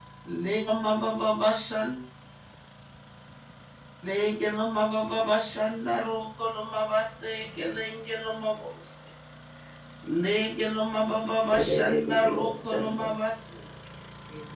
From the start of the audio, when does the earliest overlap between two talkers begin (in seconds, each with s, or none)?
11.5 s